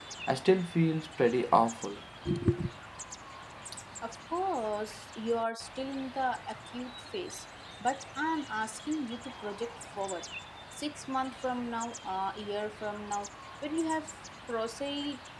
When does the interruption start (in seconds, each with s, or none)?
none